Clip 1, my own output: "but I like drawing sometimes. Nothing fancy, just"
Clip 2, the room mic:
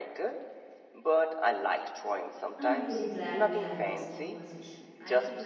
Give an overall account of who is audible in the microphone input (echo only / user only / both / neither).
both